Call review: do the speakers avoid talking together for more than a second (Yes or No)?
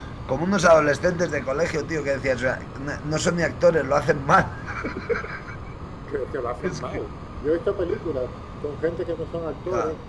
Yes